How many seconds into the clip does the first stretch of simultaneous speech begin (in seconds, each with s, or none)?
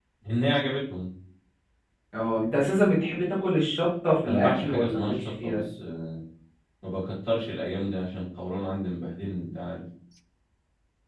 4.2 s